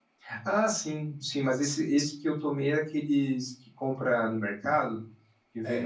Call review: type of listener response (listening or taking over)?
taking over